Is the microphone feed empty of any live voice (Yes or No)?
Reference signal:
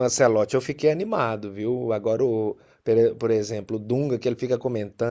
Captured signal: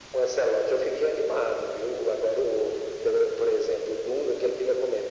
Yes